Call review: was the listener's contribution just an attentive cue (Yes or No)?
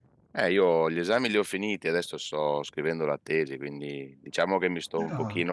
Yes